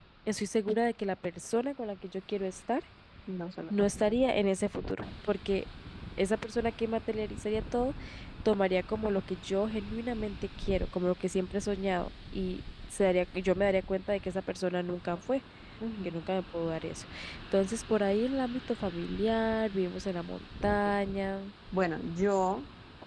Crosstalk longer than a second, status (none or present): none